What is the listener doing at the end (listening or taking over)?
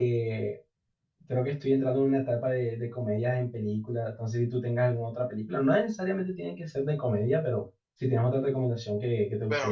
taking over